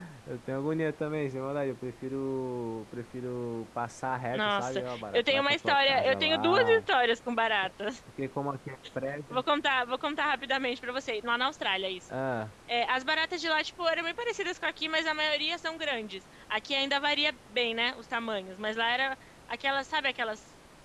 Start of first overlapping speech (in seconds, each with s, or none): 4.3 s